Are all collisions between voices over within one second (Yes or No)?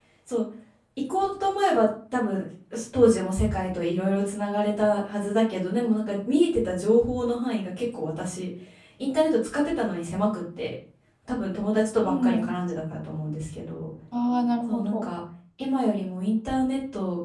Yes